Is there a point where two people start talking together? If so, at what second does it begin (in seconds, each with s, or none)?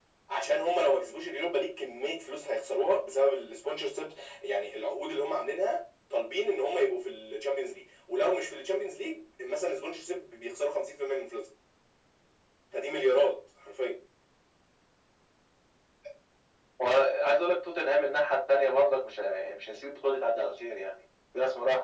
none